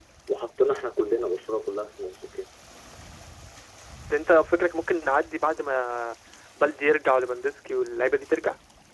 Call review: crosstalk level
none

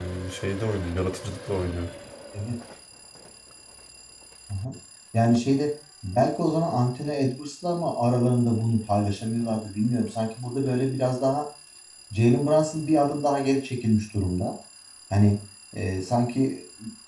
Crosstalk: none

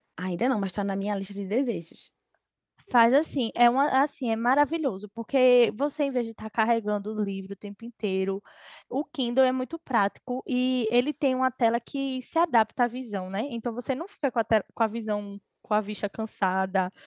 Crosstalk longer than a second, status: none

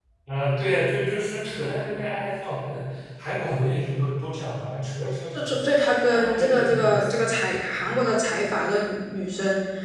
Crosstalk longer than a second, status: present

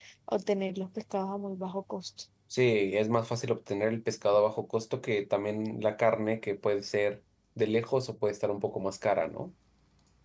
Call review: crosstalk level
none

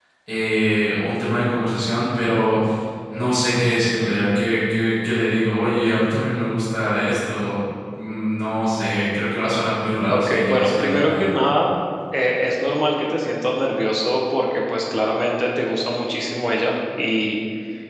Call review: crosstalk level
present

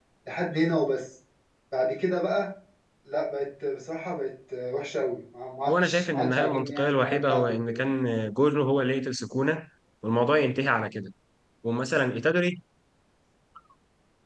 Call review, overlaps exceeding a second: present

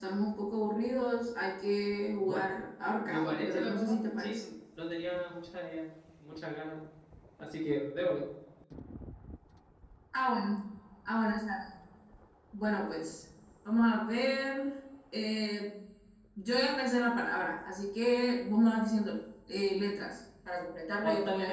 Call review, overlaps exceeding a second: present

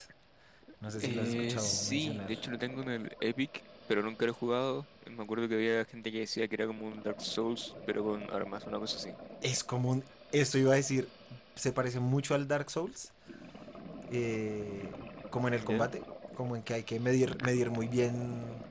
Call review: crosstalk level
present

